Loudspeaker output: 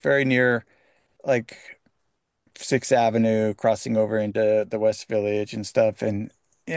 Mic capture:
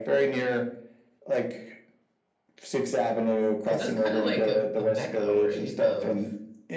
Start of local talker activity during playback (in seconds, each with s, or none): 3.6 s